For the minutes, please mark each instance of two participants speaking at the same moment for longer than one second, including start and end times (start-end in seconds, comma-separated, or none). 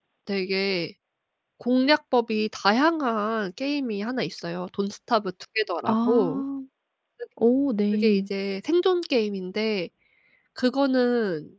none